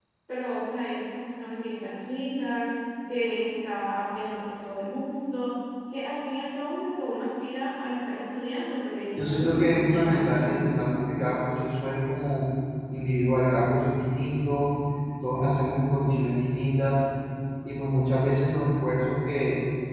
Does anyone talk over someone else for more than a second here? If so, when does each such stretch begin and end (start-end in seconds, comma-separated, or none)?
9.2-10.6